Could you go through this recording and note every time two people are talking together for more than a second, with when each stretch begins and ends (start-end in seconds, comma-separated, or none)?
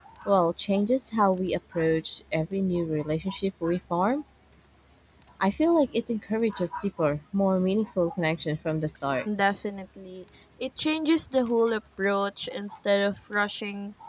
none